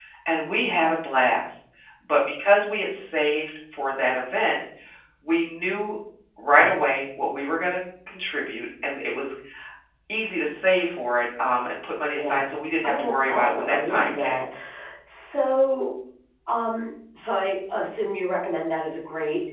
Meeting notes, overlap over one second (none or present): present